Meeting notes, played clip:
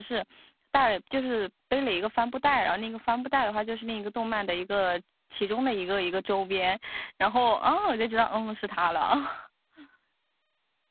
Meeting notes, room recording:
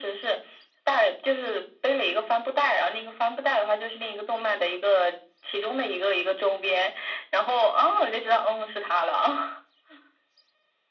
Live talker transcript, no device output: none

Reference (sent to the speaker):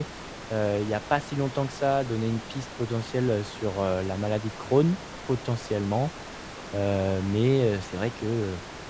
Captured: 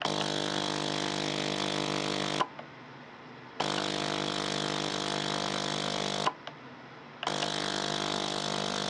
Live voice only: none

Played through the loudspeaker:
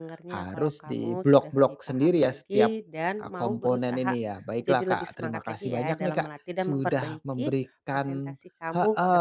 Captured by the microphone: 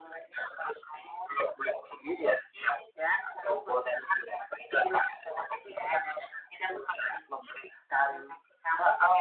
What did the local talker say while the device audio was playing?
none

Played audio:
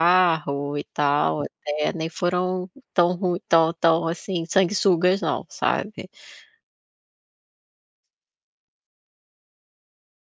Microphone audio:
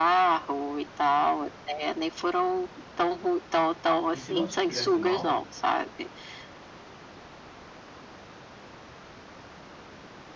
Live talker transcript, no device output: e se não te fizesse mal,

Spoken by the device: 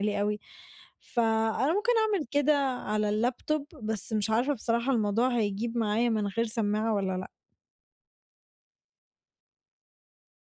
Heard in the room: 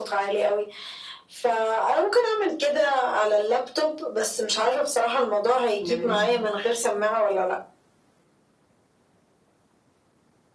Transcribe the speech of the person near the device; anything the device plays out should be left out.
جميل،

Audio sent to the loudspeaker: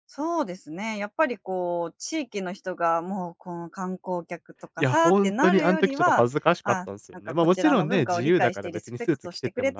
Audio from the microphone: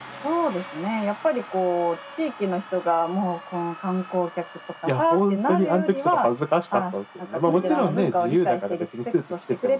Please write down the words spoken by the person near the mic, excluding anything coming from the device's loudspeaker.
うん。

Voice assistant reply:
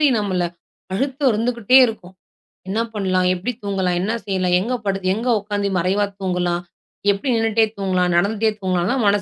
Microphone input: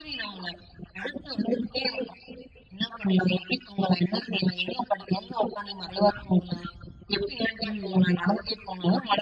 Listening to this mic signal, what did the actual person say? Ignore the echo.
ம், ம்.

